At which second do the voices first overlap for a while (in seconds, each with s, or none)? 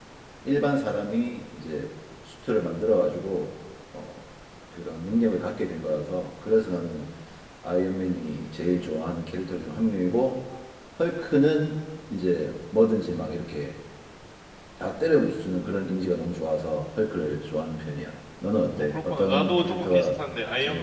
18.8 s